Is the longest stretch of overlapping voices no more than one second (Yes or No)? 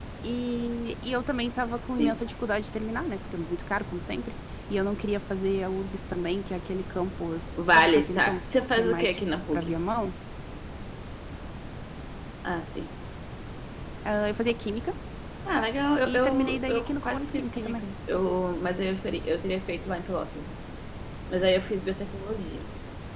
No